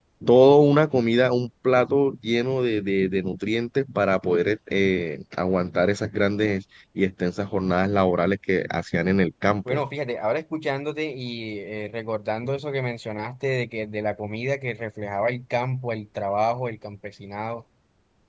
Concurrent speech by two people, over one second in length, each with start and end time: none

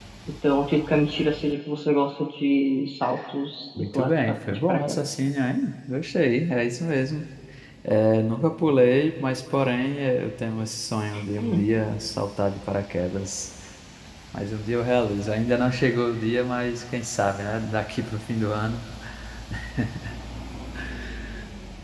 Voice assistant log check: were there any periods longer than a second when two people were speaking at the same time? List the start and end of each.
3.8-5.1

